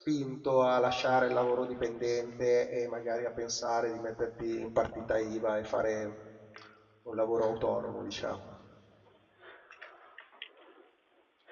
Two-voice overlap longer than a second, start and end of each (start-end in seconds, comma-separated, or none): none